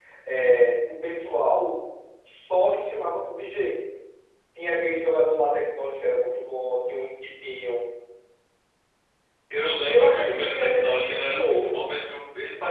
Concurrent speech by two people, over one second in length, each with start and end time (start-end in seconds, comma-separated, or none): 9.8-11.9